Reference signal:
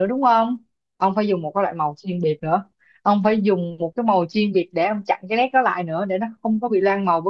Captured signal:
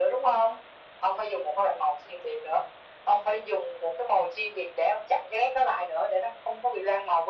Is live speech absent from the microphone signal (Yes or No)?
Yes